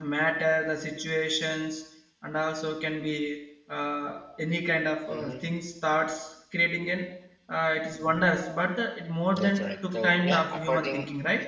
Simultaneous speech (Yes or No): Yes